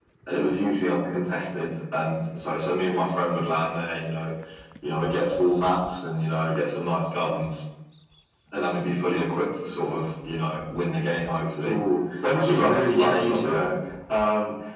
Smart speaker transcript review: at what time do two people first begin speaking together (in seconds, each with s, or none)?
12.5 s